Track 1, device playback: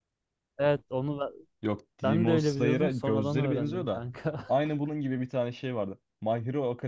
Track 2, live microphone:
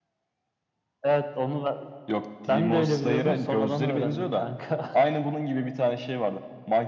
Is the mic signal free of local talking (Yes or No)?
Yes